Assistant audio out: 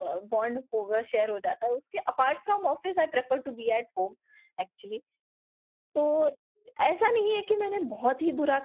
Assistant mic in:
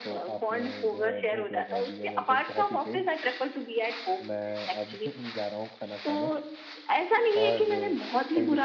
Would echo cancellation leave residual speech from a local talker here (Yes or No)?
Yes